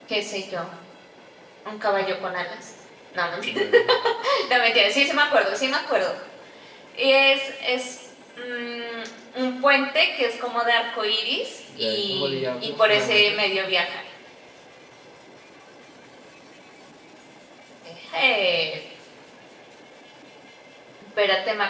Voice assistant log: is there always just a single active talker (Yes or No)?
No